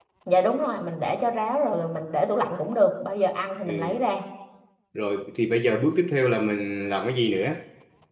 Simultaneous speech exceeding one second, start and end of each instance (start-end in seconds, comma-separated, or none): none